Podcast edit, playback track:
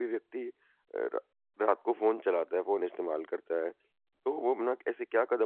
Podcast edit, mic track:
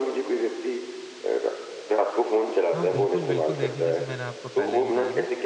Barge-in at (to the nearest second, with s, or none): 3 s